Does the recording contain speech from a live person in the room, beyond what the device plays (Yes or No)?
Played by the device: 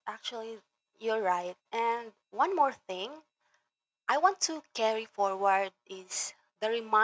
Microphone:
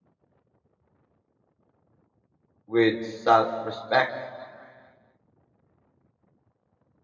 Yes